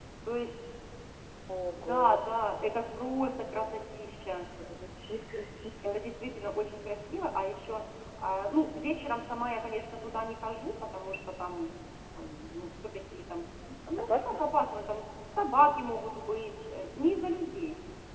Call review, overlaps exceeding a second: none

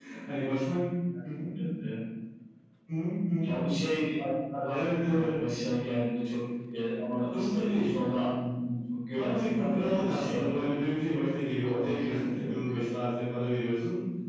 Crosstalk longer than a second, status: present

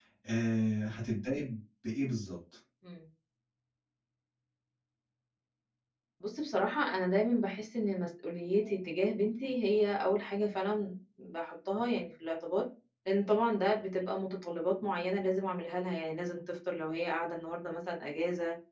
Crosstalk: none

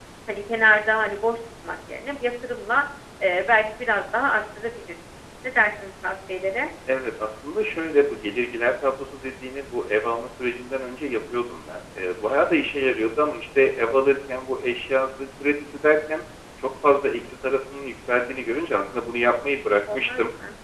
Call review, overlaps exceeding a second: none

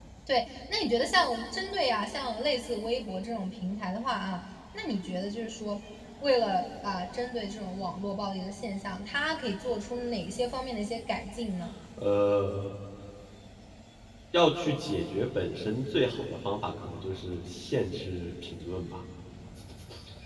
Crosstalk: none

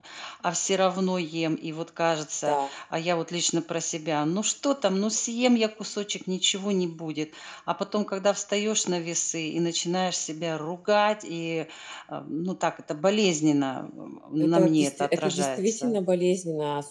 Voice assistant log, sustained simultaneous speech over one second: present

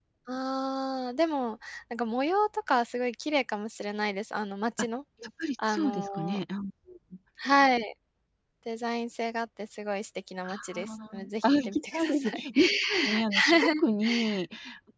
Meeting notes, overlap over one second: present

